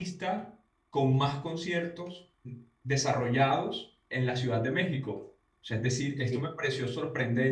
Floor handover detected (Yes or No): No